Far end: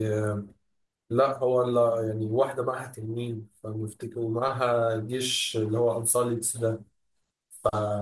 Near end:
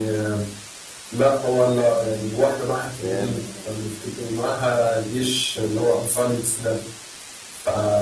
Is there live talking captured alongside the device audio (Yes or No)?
Yes